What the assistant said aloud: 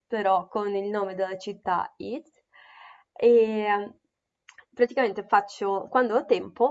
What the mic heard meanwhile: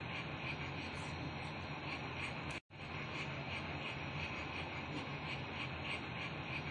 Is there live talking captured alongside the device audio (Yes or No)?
No